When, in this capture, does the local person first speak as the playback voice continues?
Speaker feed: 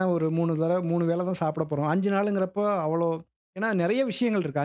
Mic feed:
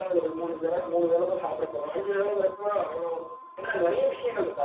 none

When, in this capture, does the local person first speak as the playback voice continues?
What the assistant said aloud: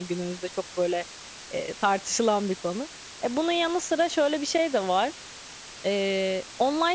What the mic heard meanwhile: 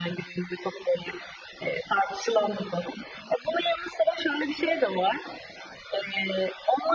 none

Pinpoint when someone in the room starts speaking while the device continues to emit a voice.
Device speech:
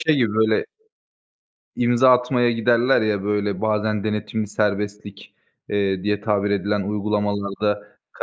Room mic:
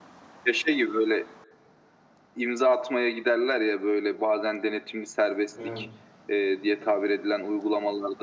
6 s

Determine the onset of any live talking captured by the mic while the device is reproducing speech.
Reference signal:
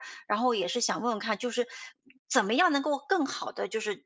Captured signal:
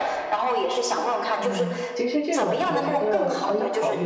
1 s

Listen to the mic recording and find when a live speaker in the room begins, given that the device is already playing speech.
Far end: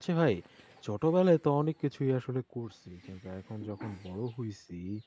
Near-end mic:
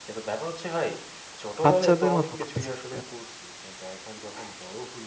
2 s

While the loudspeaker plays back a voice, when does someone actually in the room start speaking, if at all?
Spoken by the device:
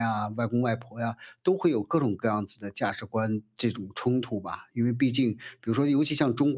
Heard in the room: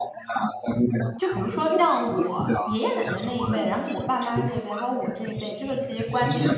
1 s

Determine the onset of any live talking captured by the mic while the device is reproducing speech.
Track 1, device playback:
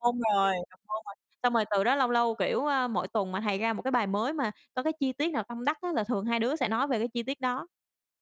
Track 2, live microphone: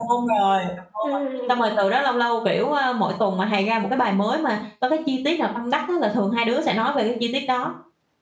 1 s

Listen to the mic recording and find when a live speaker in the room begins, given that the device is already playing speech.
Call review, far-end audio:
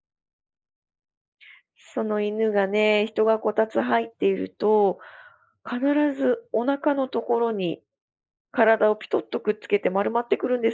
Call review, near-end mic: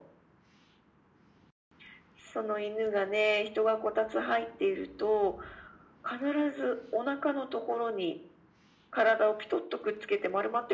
none

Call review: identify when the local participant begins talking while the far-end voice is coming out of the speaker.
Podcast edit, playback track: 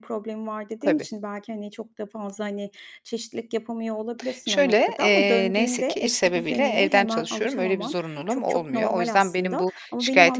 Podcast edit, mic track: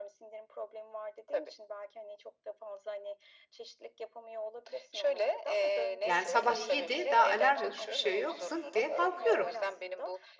6 s

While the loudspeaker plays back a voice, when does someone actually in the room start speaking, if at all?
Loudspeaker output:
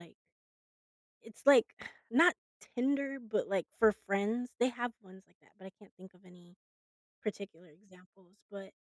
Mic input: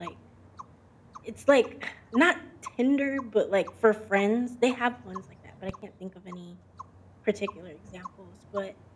none

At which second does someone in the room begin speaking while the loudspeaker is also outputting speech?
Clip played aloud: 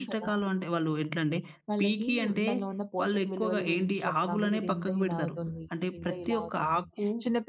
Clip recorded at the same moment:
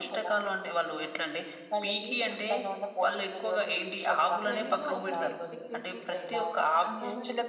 4 s

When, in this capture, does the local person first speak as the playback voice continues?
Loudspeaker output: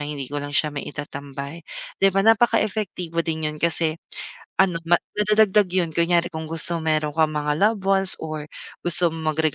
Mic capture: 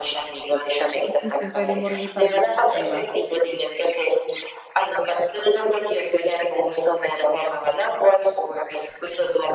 1 s

